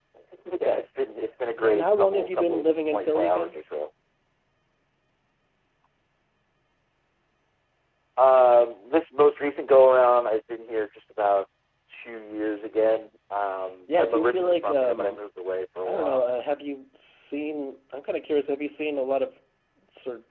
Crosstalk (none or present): present